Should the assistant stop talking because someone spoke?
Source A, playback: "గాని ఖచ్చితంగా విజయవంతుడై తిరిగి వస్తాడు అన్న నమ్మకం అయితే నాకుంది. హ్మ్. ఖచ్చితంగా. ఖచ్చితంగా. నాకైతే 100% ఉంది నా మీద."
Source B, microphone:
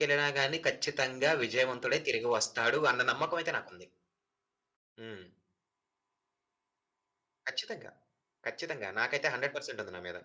No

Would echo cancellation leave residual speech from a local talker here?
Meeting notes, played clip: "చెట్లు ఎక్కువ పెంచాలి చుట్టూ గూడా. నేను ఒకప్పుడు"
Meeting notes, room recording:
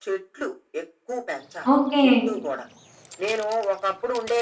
Yes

